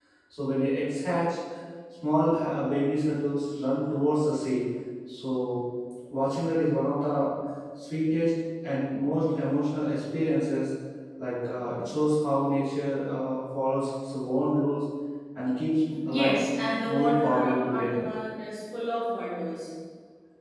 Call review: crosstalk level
present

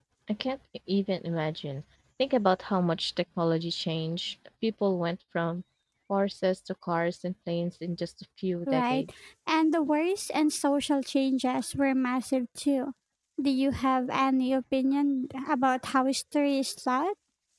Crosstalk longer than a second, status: none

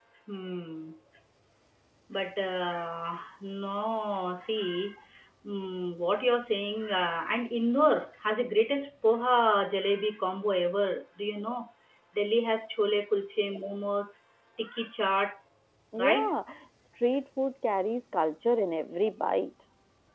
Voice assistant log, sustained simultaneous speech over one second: none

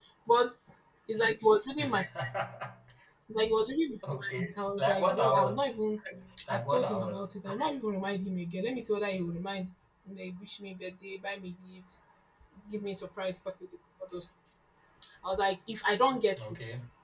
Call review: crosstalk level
present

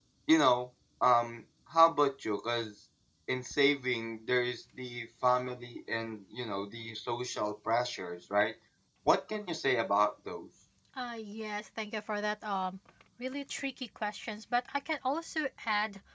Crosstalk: none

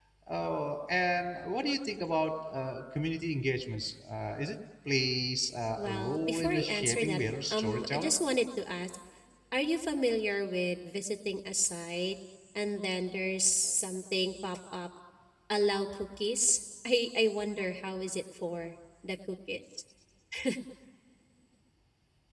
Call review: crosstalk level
present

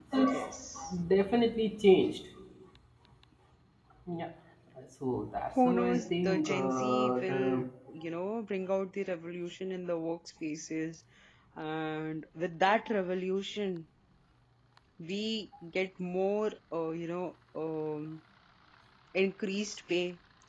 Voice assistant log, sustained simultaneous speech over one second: present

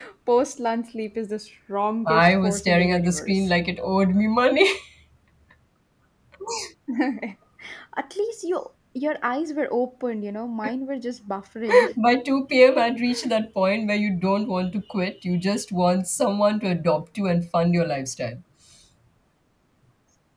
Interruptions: present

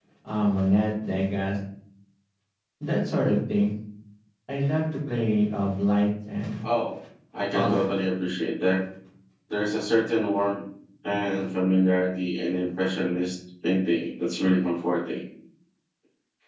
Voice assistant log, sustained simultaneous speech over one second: none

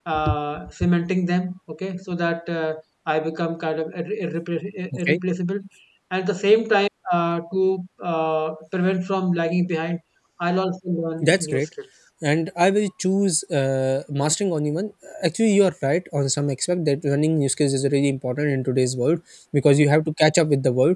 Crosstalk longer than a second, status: none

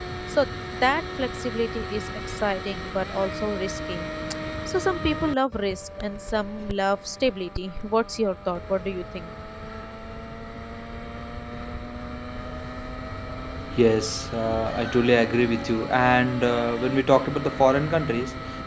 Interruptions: none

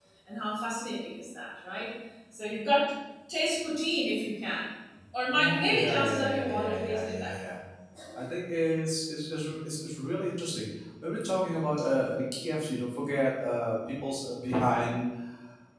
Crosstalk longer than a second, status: present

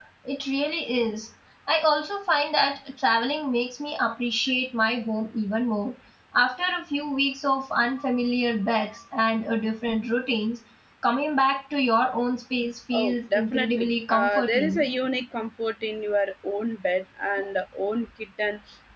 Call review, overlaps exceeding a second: present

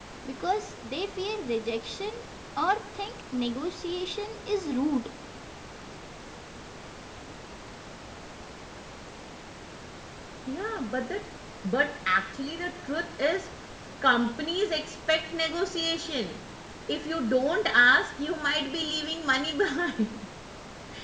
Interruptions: none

